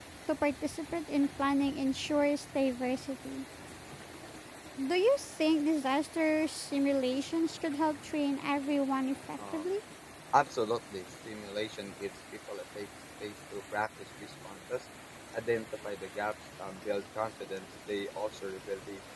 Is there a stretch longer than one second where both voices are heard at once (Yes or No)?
No